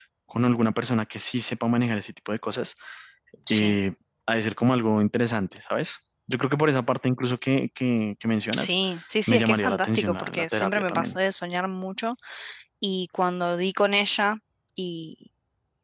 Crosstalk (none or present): present